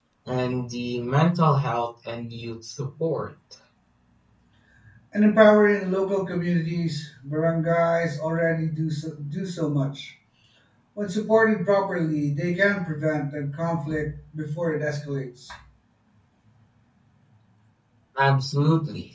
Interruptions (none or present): none